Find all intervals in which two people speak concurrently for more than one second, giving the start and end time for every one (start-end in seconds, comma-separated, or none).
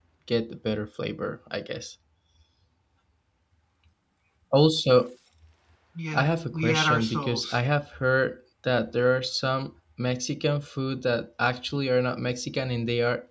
6.1-7.6